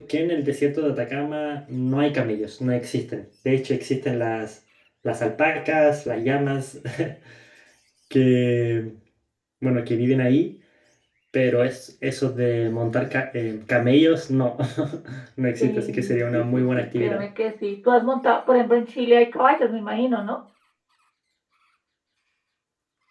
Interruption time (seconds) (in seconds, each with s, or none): 15.6 s